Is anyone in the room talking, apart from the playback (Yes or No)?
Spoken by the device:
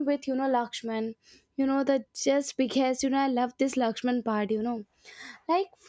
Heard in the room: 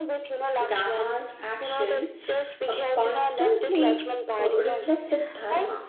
Yes